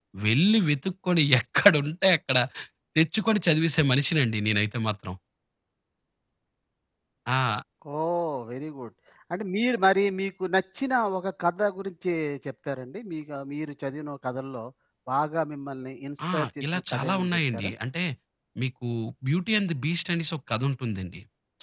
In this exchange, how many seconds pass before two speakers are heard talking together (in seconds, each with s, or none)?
16.2 s